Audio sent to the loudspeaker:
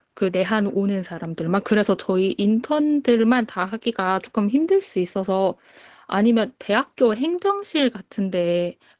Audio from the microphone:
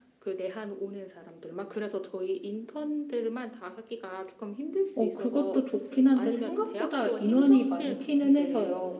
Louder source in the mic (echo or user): user